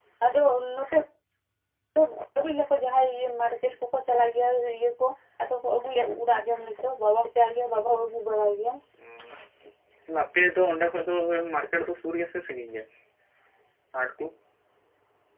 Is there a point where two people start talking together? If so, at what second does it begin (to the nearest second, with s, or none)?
none